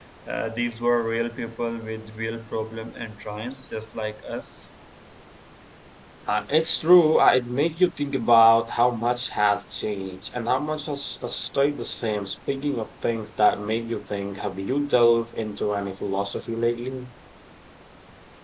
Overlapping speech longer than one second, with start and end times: none

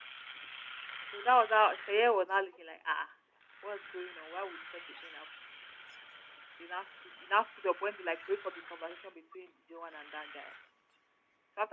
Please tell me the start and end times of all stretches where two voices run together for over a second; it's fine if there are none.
none

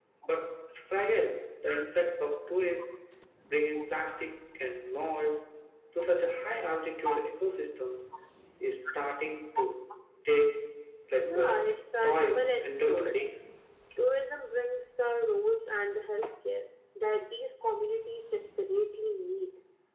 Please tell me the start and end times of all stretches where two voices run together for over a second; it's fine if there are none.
11.1-13.2

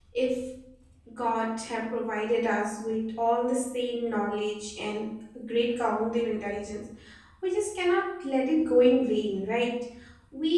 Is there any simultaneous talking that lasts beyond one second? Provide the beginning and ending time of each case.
none

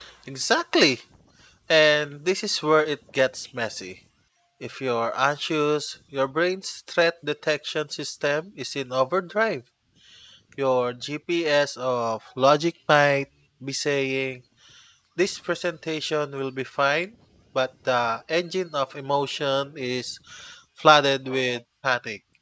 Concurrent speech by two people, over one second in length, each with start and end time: none

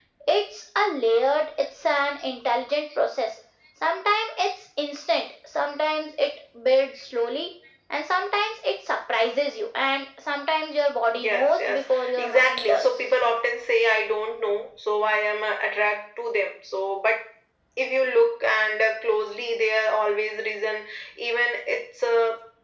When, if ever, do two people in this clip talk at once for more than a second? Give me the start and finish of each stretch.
11.1-13.2

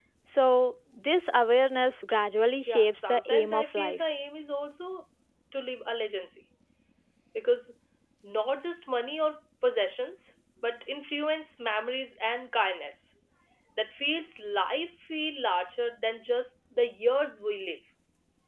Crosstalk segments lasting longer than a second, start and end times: 2.6-4.0

